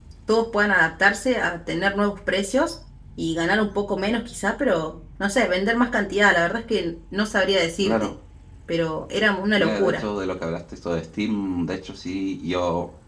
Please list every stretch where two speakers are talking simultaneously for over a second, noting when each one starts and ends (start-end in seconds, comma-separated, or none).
none